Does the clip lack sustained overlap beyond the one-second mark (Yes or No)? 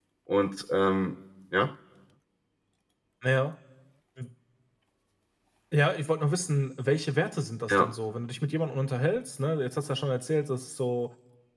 Yes